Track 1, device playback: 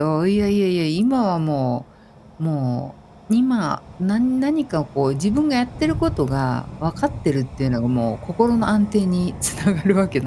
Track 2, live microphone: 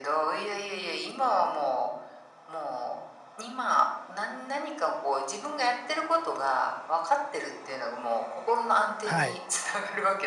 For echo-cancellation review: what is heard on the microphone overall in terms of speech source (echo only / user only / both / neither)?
both